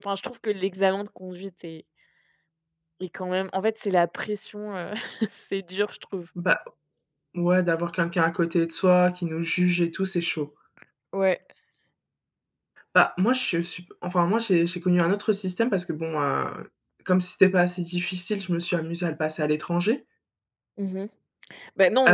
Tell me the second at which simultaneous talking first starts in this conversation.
none

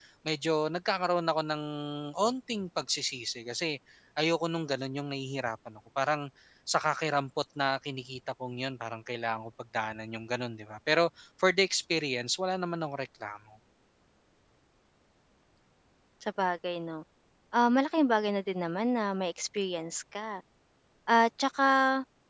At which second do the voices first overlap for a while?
none

